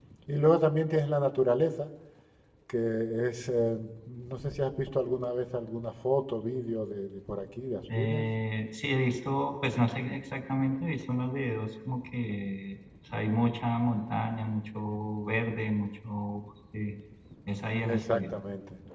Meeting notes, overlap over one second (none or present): none